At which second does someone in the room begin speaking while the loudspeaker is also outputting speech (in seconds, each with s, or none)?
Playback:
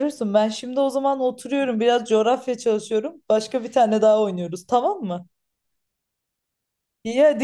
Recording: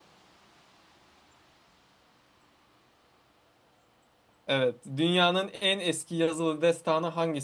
4.5 s